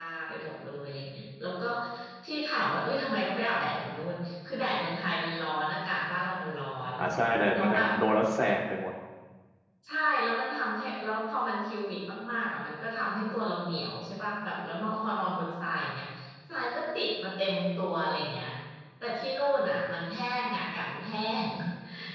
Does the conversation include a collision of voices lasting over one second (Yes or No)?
No